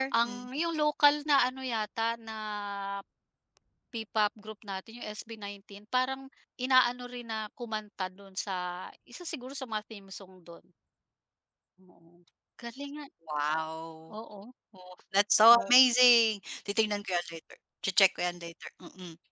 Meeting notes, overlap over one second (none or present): none